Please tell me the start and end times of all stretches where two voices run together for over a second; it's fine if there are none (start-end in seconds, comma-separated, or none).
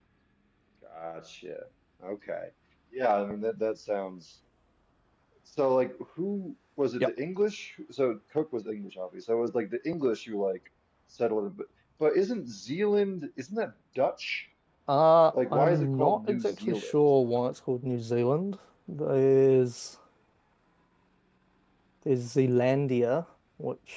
15.4-16.9